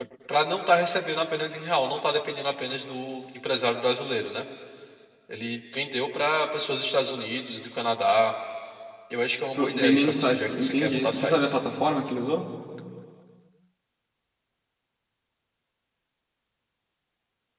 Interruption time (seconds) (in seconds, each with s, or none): 9.5 s